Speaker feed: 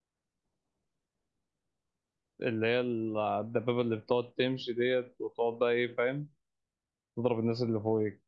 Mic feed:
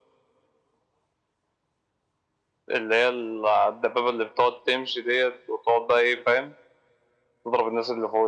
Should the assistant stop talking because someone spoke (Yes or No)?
No